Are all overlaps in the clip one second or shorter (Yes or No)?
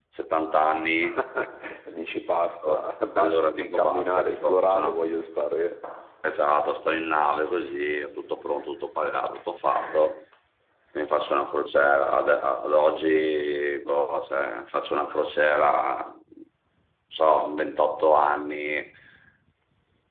No